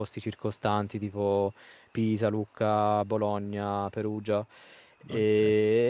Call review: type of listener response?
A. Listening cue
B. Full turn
A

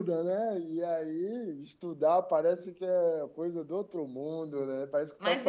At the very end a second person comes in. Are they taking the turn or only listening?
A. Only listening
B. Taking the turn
B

